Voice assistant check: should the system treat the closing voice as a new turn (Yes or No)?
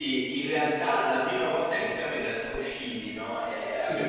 No